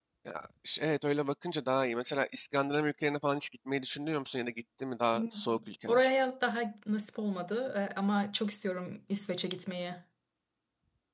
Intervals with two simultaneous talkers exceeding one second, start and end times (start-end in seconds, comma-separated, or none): none